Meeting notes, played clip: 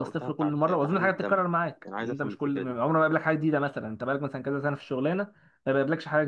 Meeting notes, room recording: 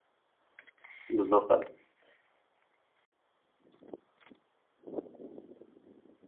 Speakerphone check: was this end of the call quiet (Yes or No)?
No